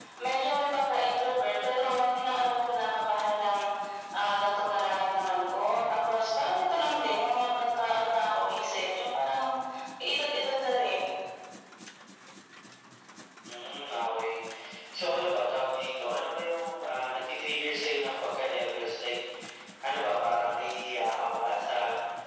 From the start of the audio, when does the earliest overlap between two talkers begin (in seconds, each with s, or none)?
none